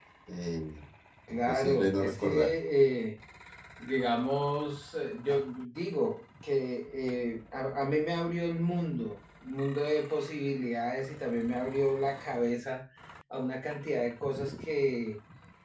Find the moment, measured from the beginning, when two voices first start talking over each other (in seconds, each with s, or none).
1.3 s